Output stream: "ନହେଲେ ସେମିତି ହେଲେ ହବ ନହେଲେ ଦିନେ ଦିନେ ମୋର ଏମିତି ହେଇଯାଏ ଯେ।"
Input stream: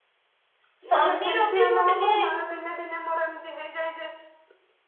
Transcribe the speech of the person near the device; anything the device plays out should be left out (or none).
ଶନି ରବି ମୁଁ ଟିକେ